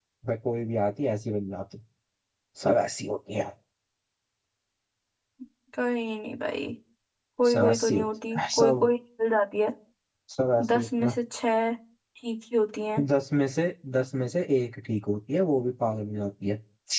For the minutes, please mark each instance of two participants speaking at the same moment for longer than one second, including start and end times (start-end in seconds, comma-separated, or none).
7.5-8.9